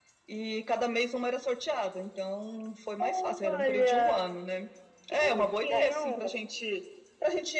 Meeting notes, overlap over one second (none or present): present